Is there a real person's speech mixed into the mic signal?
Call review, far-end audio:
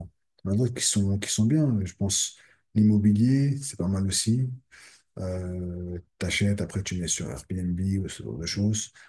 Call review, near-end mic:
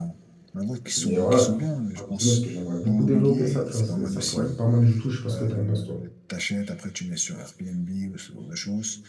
Yes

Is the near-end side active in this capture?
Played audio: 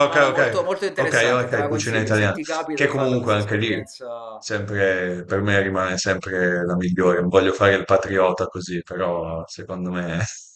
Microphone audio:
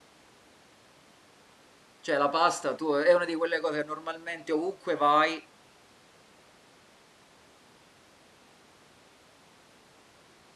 Yes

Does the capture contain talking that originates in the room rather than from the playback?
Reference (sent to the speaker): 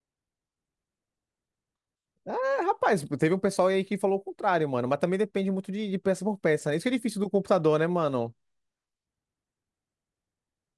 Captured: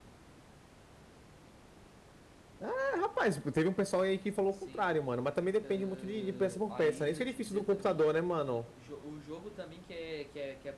Yes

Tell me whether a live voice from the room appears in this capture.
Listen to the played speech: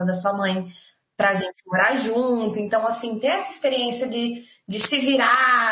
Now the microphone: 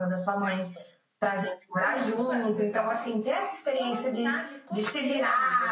Yes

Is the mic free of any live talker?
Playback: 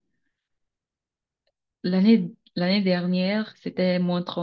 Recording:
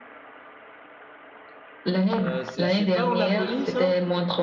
No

